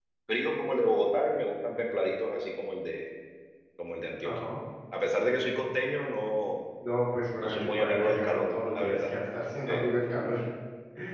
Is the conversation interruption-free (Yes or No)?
No